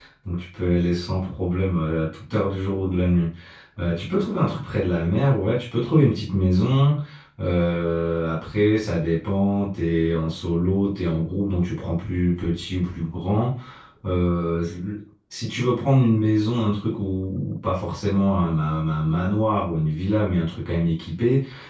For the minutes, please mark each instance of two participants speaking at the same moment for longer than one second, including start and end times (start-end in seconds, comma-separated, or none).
none